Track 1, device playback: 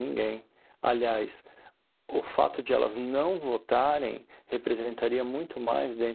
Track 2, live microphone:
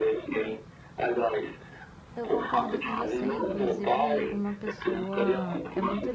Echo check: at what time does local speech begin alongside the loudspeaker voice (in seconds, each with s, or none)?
2.1 s